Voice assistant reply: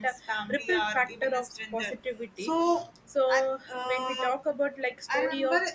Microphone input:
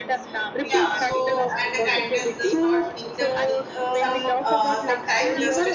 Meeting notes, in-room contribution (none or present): present